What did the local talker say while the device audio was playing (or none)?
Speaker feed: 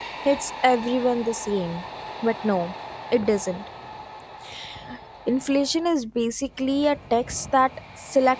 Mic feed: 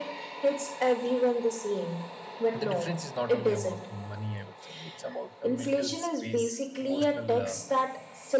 the difference is not only about money i would say it's about a mental space emotional uh,